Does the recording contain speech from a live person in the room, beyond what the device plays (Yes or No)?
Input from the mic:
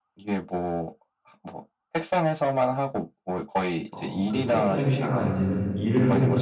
Yes